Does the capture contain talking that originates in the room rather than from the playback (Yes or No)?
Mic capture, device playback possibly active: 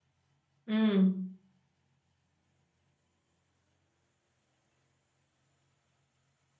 Yes